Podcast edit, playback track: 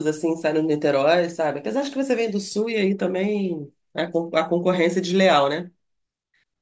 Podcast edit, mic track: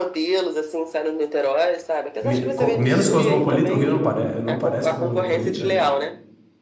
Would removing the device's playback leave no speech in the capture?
No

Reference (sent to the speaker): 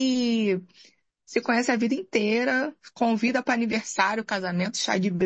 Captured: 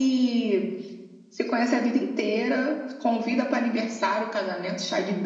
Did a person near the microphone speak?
No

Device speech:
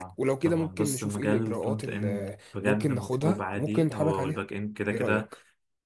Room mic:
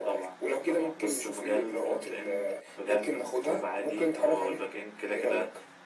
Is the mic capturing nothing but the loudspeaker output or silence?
Yes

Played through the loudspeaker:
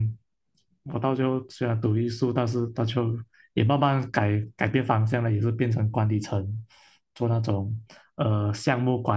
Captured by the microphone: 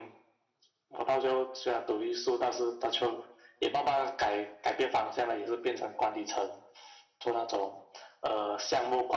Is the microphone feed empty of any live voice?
Yes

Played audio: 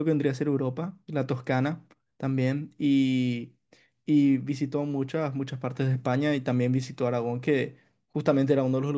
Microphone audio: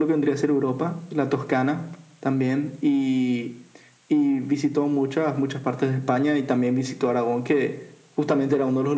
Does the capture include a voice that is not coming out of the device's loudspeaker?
No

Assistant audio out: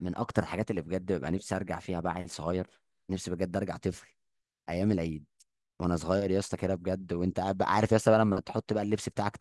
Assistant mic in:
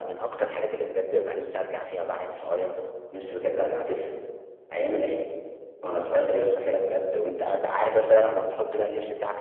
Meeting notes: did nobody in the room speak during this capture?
Yes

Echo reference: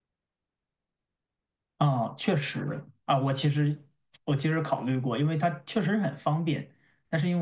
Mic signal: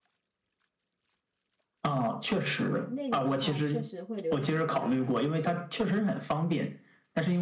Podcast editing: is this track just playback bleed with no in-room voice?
No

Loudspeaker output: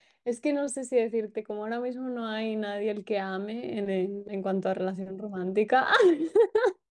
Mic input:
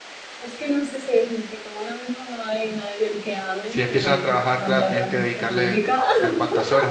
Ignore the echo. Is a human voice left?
Yes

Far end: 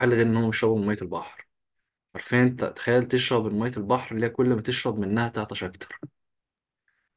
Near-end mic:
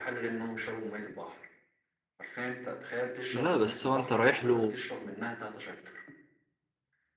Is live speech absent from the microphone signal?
No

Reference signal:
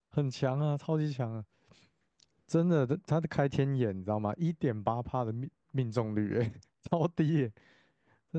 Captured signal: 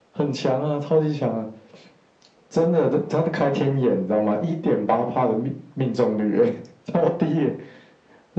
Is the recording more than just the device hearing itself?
No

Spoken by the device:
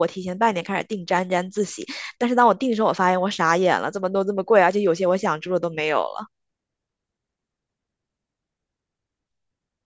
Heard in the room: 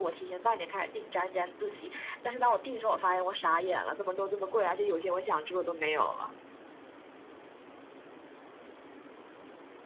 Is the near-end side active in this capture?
No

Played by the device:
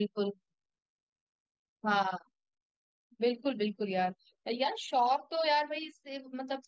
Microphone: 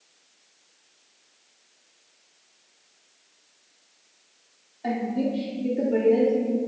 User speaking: Yes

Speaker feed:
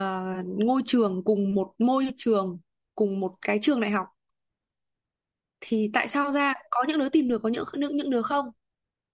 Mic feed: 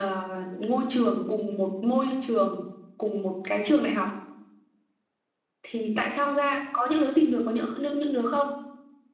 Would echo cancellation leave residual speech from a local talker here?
No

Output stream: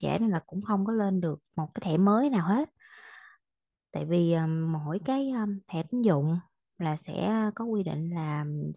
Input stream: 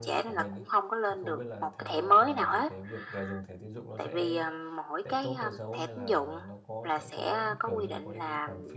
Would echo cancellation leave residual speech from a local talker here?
Yes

